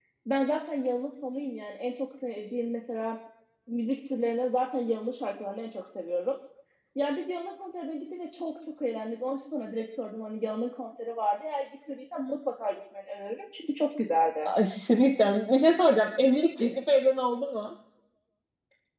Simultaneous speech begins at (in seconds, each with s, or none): none